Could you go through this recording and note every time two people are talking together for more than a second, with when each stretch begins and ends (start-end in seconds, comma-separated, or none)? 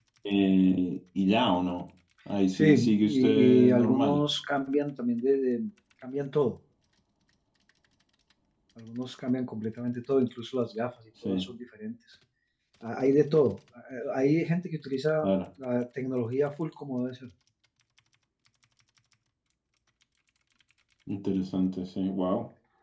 2.5-4.2